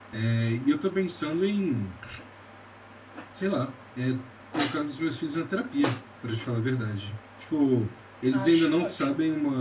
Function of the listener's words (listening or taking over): listening